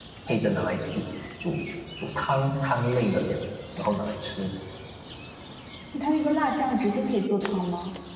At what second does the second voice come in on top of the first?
none

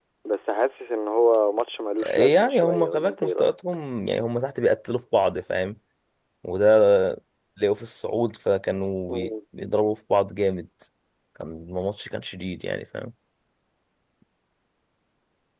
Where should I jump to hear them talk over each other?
2.0 s

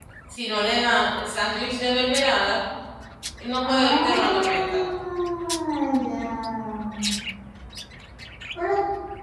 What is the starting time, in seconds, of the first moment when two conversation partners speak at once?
3.6 s

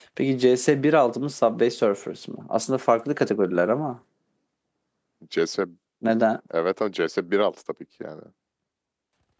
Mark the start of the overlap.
none

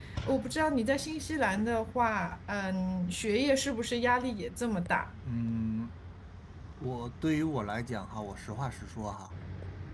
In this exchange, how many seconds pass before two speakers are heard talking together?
none

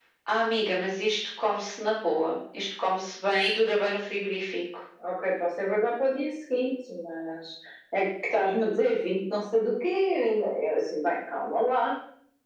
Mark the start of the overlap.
none

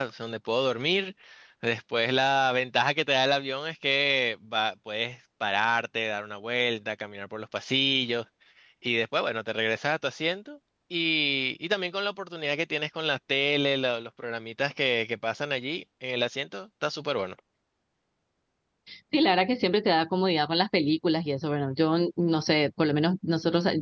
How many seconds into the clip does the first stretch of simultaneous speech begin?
none

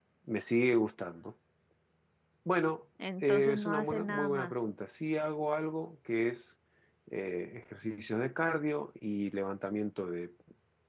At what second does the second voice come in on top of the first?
3.2 s

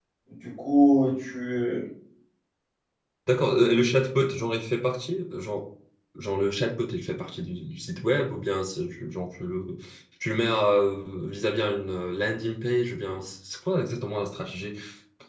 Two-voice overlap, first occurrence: none

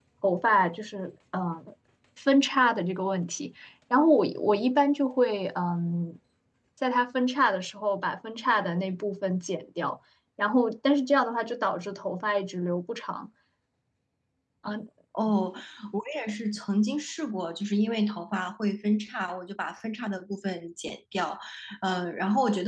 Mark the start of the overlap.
none

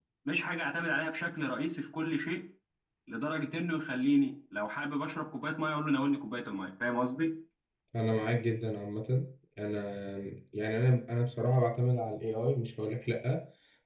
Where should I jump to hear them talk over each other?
none

